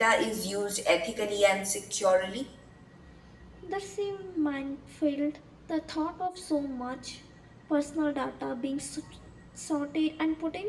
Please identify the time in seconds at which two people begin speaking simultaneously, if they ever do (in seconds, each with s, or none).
none